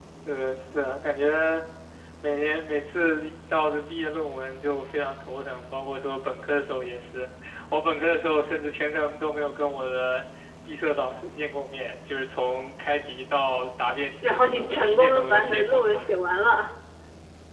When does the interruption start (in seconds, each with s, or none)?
14.2 s